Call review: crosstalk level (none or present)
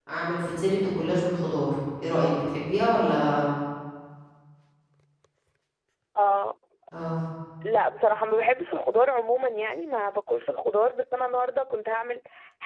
none